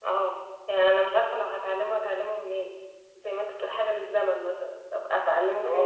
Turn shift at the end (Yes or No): Yes